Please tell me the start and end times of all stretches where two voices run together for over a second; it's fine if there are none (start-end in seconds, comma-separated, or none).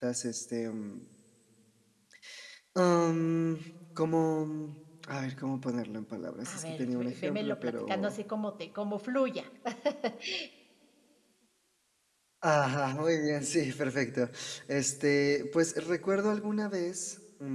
6.5-8.2